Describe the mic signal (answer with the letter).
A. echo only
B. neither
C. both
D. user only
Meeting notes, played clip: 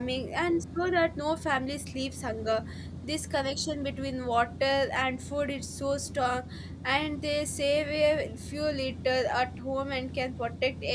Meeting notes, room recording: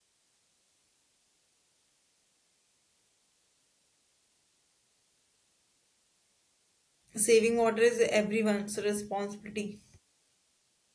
D